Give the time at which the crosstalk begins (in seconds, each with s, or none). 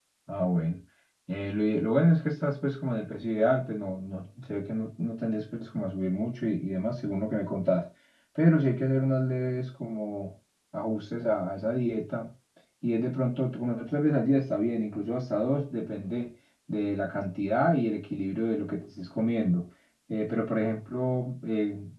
none